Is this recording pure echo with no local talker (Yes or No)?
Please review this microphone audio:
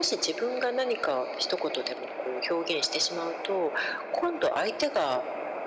Yes